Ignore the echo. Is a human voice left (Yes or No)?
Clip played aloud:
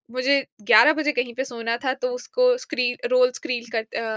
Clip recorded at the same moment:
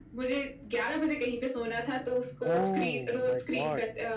Yes